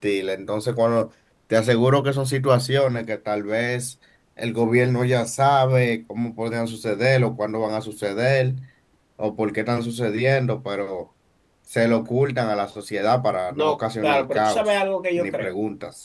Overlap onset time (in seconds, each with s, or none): 13.5 s